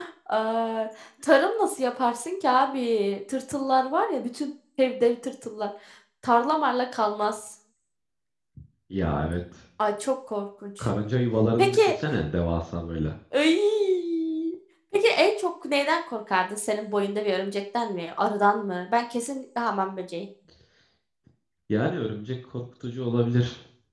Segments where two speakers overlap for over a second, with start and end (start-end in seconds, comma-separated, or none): none